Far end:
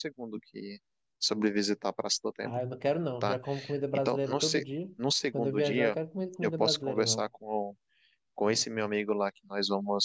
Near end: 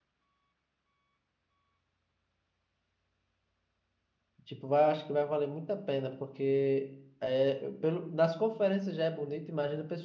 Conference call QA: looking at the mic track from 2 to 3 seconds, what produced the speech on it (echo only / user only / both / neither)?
neither